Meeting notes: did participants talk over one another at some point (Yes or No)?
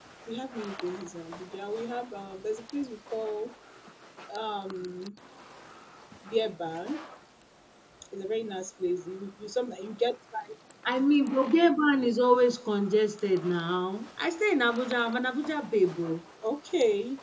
No